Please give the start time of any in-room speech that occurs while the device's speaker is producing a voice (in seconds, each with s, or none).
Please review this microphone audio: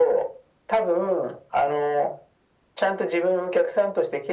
none